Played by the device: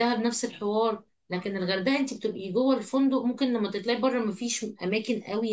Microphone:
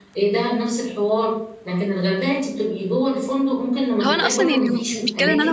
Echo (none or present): present